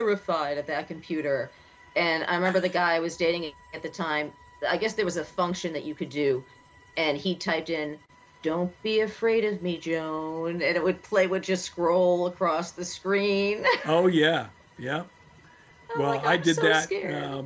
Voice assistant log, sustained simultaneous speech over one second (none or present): present